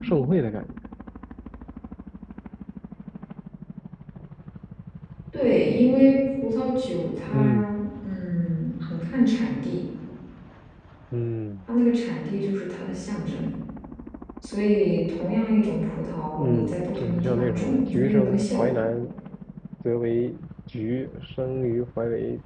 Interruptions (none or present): present